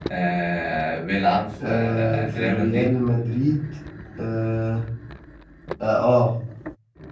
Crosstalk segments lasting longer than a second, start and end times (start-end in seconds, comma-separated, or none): 1.6-2.9